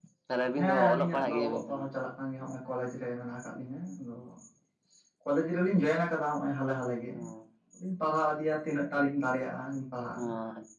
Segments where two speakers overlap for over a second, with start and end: 0.6-1.9

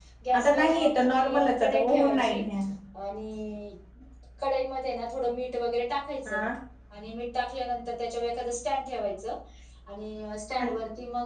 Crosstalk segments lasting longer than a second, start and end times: 0.5-2.4

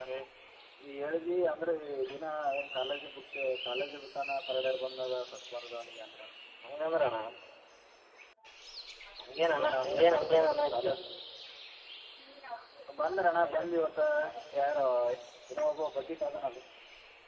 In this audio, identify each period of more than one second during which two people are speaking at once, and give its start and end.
9.3-10.9

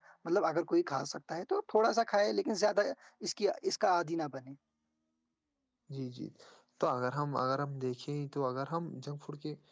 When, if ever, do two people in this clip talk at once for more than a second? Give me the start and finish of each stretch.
none

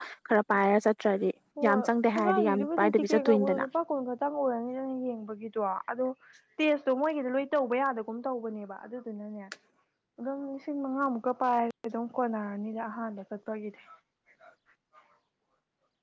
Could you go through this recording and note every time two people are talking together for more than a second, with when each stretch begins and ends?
1.7-3.6

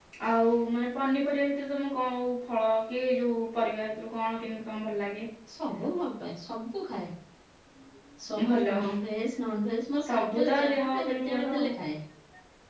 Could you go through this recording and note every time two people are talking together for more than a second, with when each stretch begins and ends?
10.1-11.7

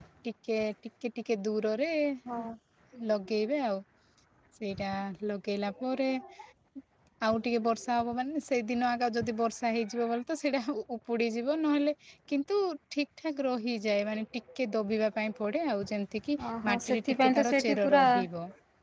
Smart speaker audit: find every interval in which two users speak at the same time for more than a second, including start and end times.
16.6-18.2

